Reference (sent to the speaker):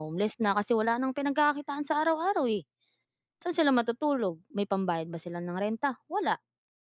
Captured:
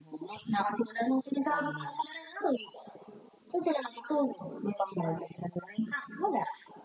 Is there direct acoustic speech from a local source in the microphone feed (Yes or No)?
Yes